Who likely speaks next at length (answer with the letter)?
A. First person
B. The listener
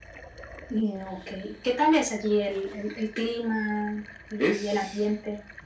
B